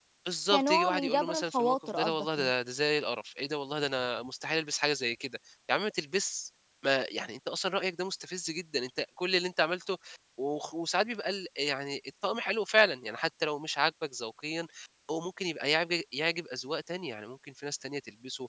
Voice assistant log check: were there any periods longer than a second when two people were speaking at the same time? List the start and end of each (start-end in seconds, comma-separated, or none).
0.5-2.5